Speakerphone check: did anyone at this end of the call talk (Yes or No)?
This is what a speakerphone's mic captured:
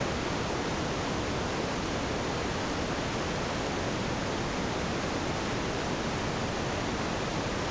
No